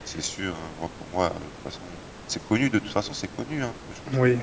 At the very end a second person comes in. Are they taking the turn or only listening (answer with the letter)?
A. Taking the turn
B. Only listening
B